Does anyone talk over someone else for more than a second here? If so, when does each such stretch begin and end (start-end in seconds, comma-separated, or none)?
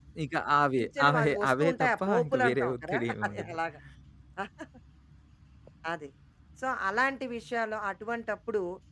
0.8-3.5